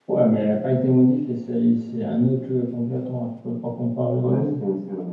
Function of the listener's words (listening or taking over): taking over